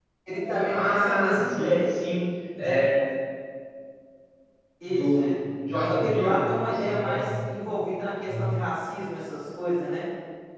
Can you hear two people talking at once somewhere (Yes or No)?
Yes